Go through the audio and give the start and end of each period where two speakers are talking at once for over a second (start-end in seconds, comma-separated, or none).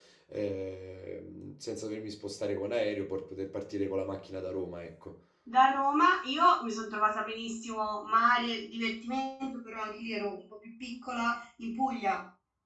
none